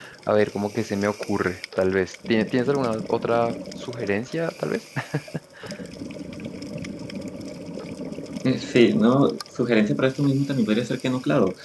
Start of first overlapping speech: none

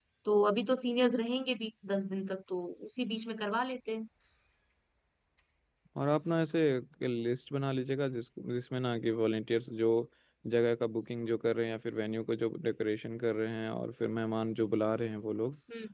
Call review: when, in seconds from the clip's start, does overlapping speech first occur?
none

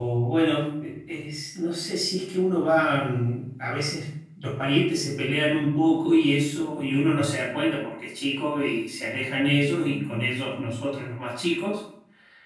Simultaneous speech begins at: none

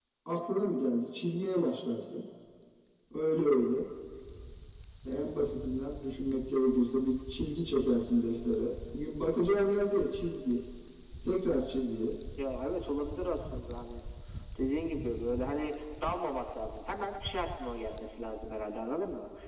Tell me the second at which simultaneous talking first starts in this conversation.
none

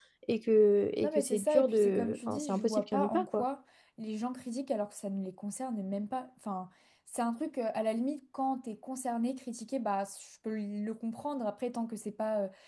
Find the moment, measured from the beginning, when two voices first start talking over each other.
1 s

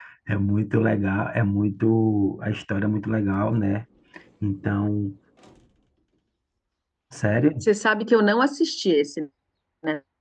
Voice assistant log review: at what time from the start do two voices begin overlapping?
none

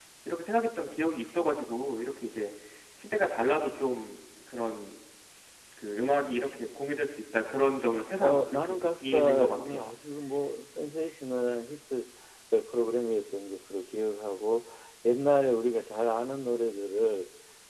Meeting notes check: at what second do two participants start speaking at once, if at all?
8 s

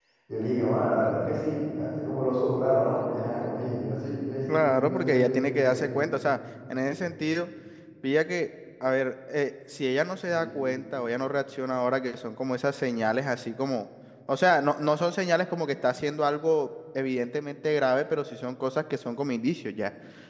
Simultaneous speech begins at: 5 s

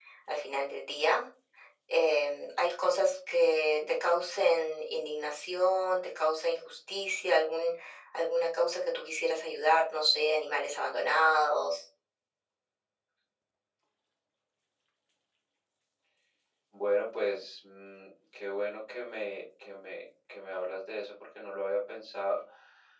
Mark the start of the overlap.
none

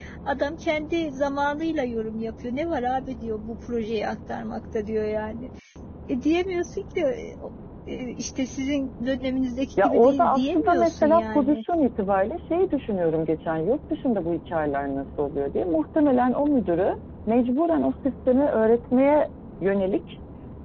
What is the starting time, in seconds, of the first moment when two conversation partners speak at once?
10 s

